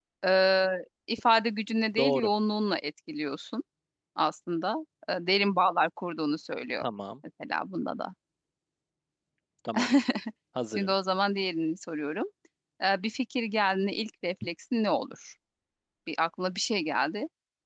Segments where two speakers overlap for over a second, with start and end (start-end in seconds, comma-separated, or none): none